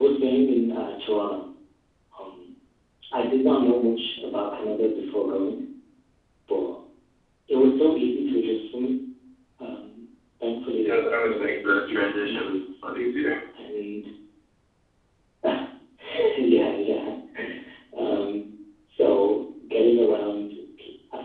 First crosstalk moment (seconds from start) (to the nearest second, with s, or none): 11 s